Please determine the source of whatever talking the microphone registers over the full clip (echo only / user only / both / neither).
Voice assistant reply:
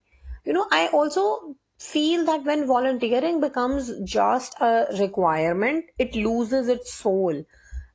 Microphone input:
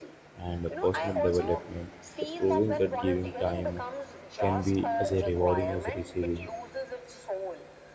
both